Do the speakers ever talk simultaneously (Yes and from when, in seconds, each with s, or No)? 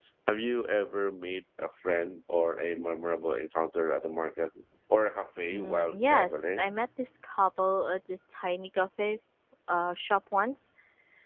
Yes, from 5.5 s